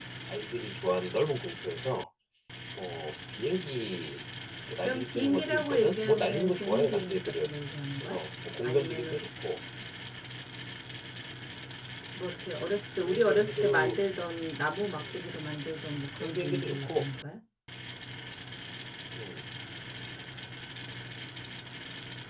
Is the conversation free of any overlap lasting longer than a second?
No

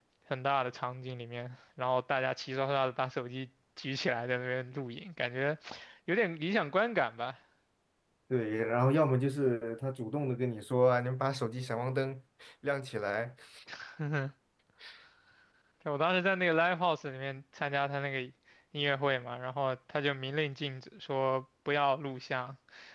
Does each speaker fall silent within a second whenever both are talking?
Yes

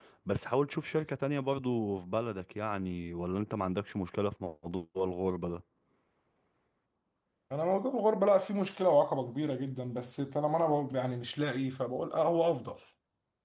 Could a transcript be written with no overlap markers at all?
Yes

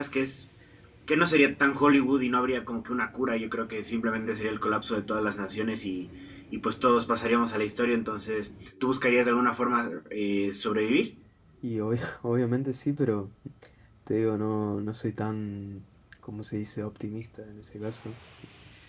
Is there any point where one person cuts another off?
No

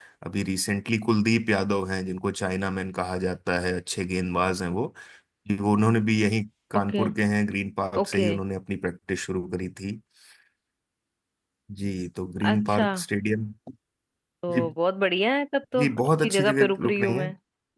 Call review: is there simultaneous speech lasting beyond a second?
Yes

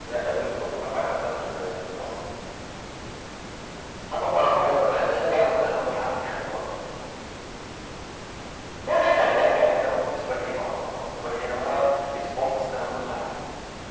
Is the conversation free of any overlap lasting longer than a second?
No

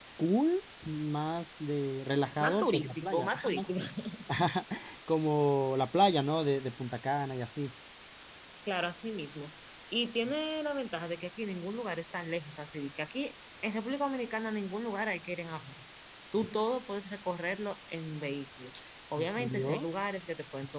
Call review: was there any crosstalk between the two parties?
Yes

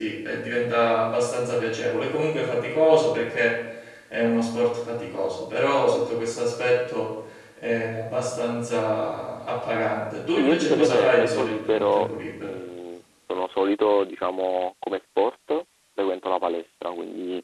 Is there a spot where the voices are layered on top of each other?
Yes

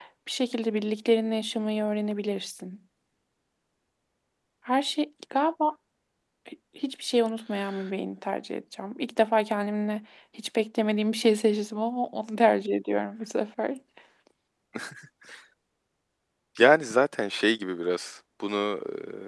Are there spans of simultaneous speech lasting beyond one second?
No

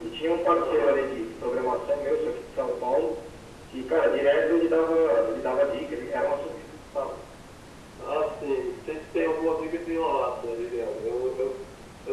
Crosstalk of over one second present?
No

